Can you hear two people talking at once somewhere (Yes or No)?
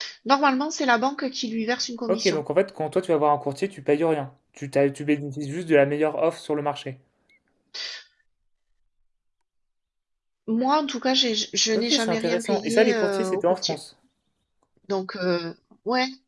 Yes